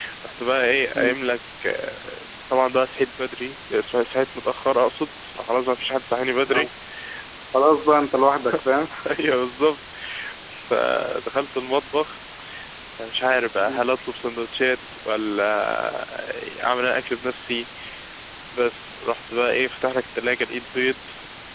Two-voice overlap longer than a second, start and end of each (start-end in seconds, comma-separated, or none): none